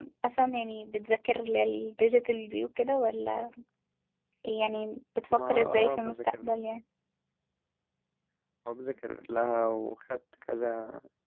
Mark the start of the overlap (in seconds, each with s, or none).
5.3 s